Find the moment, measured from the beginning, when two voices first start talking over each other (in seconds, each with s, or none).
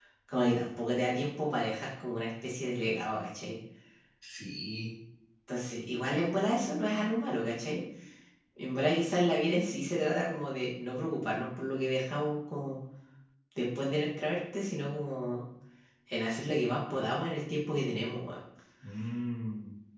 none